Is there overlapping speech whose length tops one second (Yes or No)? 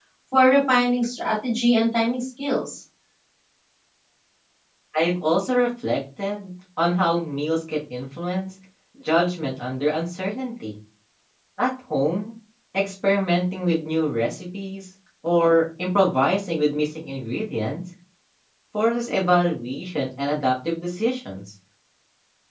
No